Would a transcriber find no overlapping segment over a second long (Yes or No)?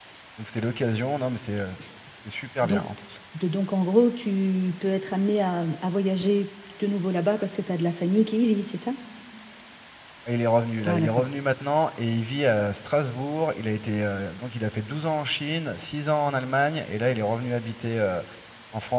Yes